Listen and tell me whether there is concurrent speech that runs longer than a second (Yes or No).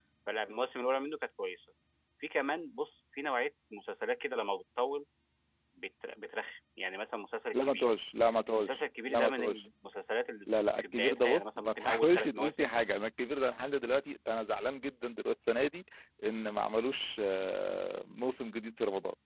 Yes